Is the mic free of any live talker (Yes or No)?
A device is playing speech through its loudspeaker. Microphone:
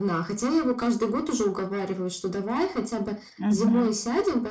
No